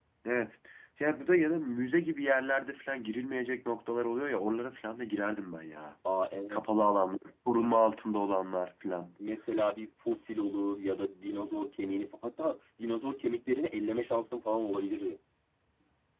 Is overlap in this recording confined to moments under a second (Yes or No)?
Yes